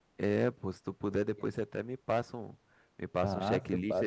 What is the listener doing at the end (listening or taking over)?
taking over